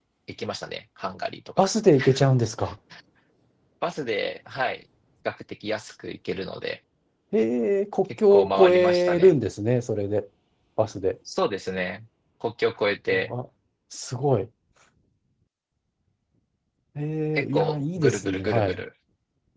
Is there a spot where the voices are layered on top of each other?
Yes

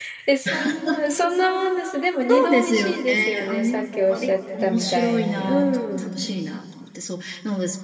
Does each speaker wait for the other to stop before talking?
No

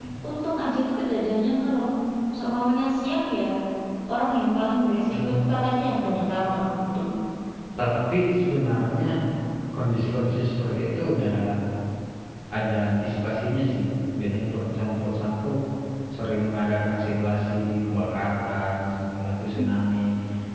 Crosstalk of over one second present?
No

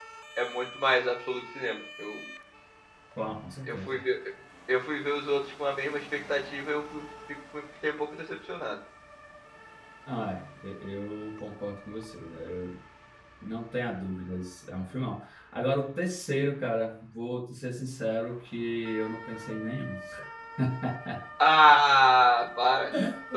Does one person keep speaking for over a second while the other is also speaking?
No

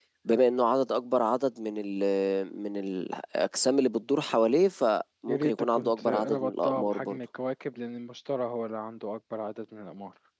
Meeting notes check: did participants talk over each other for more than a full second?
Yes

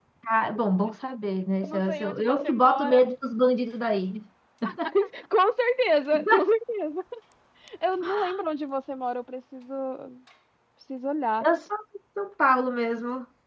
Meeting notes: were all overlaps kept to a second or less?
No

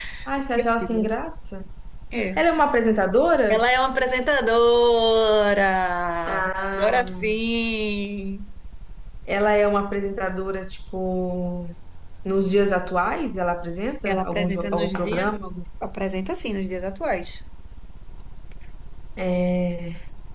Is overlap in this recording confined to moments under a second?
No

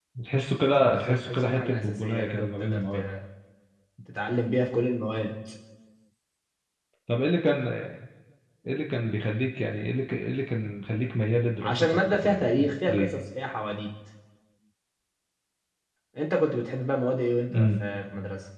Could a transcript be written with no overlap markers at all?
No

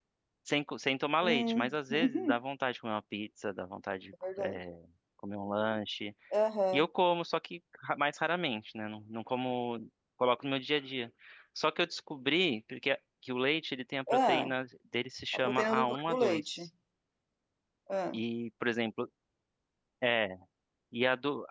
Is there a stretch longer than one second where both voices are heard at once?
Yes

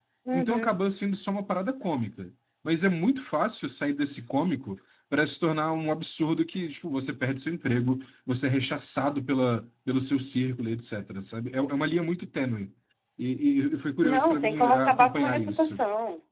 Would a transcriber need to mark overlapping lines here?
Yes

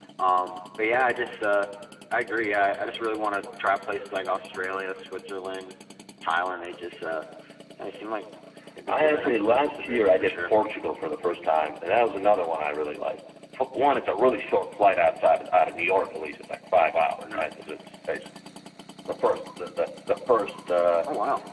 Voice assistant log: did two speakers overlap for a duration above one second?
Yes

